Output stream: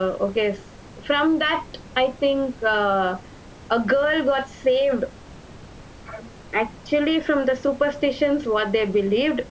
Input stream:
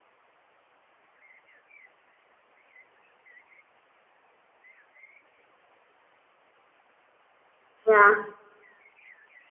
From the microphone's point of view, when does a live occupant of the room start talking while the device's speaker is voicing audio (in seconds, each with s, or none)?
7.9 s